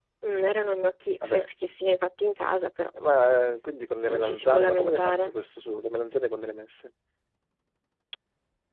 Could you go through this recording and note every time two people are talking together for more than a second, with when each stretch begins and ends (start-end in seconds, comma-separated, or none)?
4.0-5.3